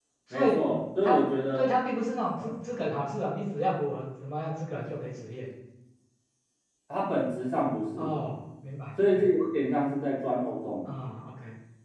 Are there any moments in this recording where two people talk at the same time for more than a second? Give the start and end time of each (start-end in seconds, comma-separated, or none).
none